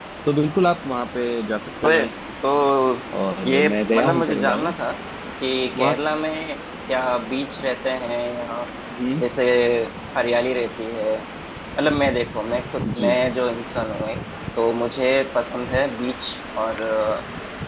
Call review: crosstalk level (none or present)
present